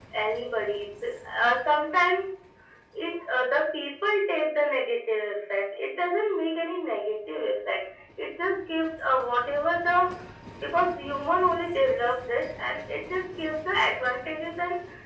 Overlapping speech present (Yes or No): No